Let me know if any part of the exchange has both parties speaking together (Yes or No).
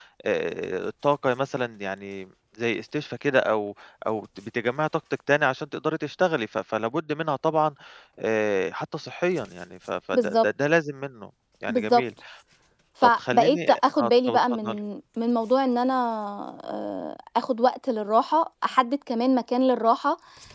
Yes